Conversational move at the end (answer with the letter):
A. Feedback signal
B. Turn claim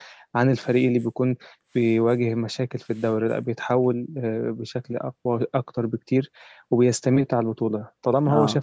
A